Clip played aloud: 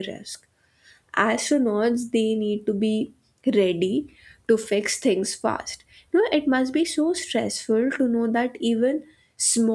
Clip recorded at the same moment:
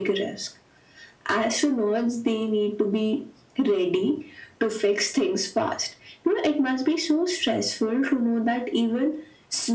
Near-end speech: none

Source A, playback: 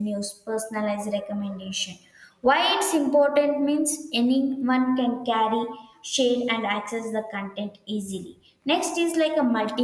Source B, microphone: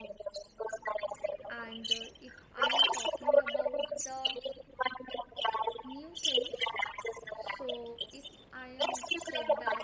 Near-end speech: present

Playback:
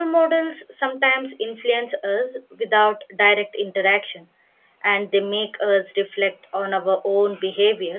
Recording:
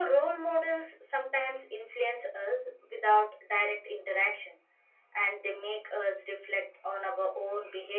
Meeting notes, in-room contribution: none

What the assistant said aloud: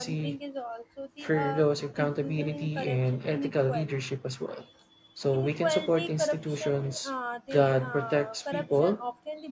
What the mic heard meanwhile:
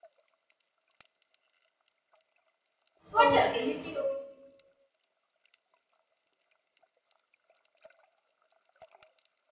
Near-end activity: present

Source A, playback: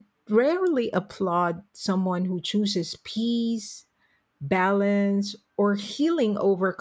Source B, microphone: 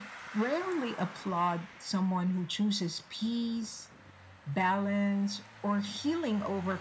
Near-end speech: none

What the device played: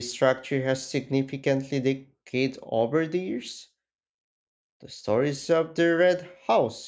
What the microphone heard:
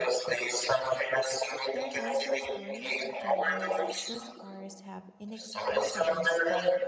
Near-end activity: present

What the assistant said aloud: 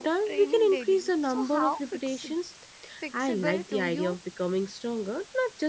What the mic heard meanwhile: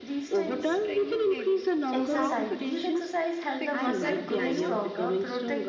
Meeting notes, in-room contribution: present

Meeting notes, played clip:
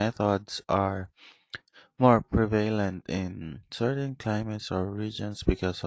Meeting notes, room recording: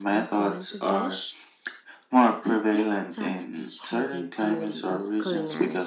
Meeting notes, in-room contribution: present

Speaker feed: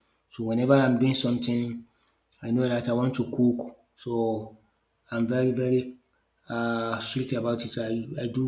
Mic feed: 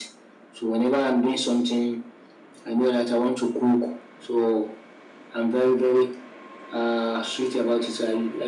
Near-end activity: none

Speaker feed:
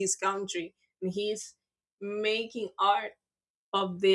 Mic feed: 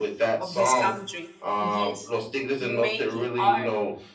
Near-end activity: present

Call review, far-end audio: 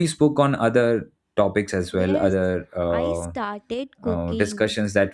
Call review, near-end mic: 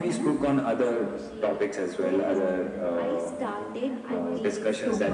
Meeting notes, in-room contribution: present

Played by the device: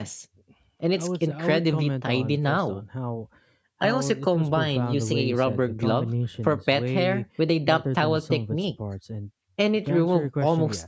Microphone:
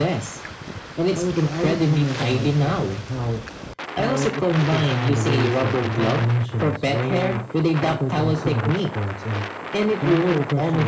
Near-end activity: none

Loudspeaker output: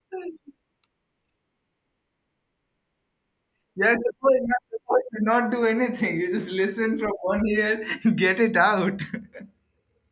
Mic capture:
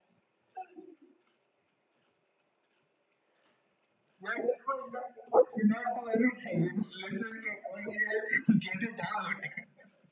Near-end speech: none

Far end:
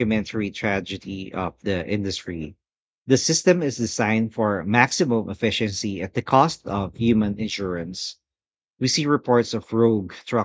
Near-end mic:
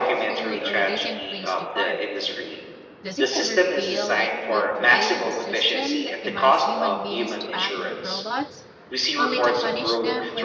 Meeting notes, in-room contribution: present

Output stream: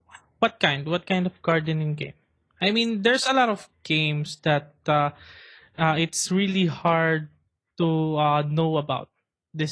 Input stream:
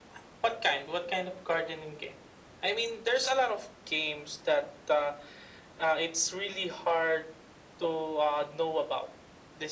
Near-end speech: none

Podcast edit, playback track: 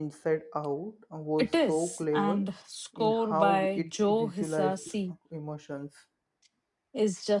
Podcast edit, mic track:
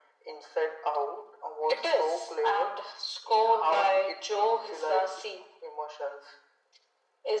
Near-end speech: none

